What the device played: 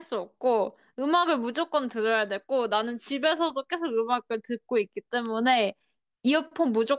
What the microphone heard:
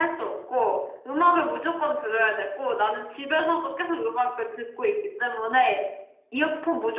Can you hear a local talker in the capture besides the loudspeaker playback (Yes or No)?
No